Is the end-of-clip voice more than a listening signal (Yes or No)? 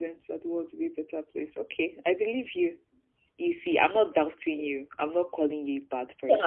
Yes